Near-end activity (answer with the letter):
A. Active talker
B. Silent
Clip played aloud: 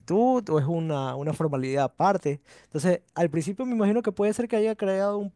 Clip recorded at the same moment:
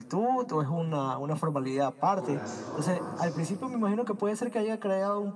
A